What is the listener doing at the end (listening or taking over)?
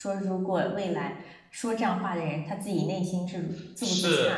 taking over